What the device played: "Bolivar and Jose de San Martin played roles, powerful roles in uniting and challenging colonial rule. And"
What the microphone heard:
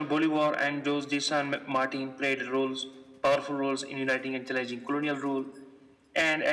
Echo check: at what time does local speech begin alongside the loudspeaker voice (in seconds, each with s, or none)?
none